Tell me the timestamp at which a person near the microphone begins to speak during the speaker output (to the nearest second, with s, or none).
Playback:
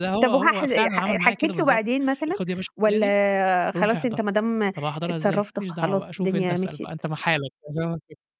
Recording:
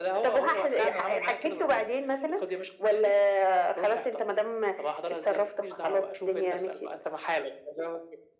none